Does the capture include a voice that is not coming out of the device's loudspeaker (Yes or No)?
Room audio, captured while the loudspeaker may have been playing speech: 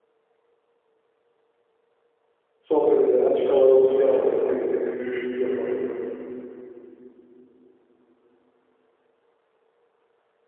Yes